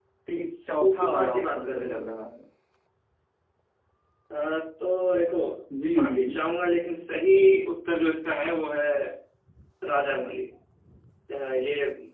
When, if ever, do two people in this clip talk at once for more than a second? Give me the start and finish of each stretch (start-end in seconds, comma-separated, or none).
0.6-2.1